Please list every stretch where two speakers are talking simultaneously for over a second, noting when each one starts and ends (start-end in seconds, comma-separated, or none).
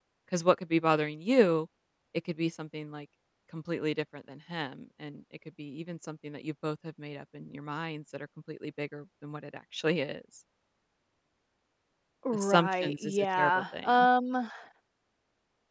12.3-14.1